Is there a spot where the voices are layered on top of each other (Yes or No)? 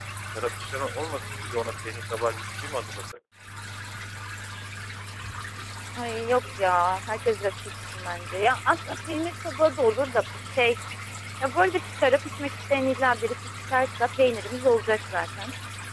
No